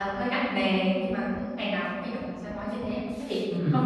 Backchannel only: Yes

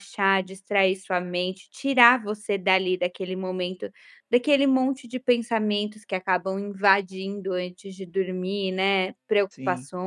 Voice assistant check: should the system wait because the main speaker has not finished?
Yes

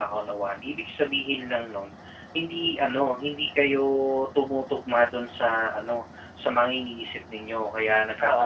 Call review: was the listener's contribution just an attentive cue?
No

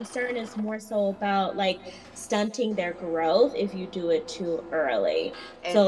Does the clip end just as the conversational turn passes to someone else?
No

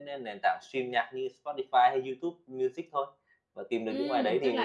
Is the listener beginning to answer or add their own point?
Yes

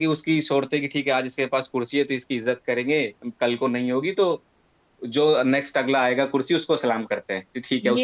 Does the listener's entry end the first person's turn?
Yes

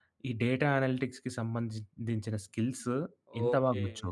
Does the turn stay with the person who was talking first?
No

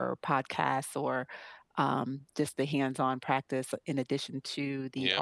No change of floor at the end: Yes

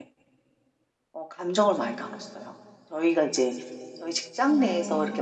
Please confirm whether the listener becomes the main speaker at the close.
No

